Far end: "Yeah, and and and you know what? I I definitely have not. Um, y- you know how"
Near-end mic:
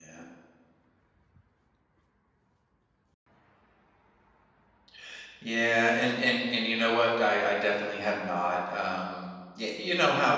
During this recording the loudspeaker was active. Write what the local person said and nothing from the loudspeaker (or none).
none